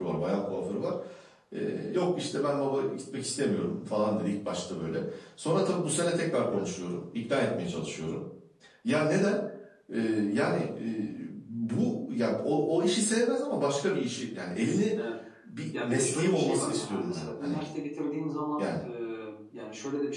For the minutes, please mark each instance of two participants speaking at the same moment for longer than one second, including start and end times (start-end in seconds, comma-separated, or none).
15.8-17.6